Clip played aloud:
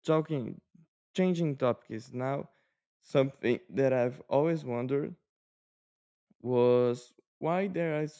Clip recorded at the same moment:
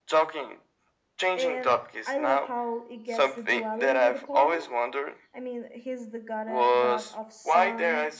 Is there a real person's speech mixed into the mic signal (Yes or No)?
Yes